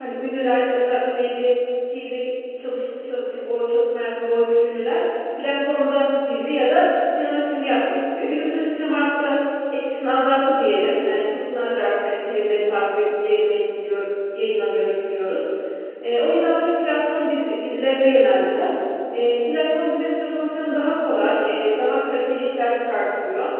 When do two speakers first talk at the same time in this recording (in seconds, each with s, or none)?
none